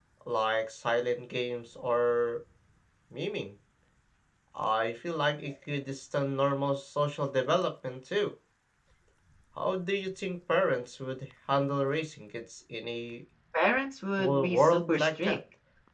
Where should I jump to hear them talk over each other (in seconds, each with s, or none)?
14.2 s